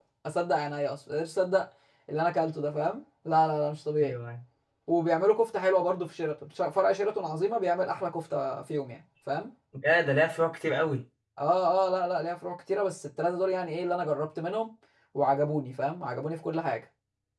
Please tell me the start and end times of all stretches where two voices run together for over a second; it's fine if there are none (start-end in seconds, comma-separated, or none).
none